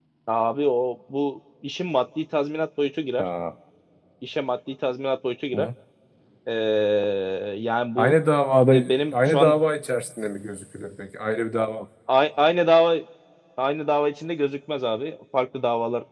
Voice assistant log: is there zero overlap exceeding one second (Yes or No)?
Yes